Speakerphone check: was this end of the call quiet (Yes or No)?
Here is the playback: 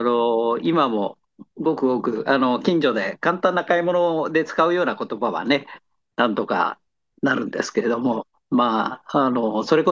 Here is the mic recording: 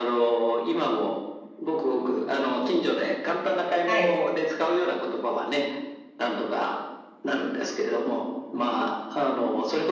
No